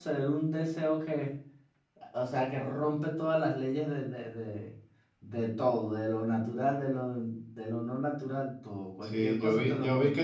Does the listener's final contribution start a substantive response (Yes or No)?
Yes